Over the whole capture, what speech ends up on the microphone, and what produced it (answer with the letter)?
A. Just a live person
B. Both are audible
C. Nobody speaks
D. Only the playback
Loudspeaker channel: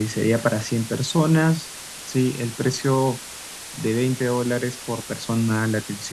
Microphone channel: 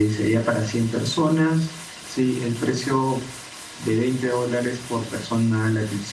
D